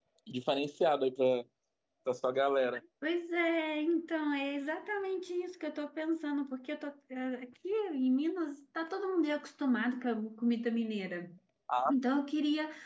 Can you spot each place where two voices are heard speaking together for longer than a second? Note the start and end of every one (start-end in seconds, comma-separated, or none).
none